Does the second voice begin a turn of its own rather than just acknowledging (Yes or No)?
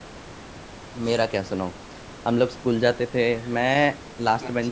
No